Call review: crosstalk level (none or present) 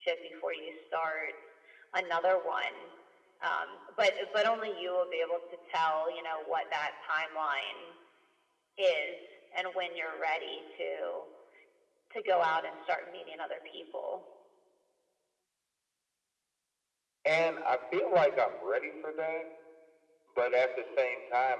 none